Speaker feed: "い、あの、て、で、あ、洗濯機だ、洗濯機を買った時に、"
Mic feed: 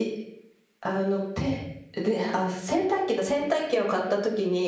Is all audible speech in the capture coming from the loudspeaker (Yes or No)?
Yes